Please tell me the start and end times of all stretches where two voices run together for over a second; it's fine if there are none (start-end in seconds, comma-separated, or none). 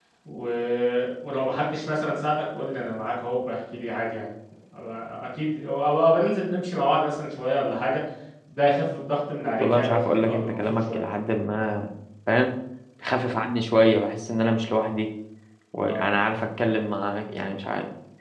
9.6-11.0